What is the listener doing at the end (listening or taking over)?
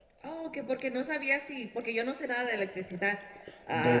taking over